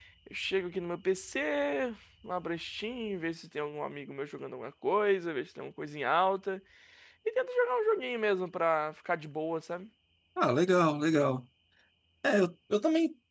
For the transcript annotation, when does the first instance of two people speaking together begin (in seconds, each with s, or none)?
none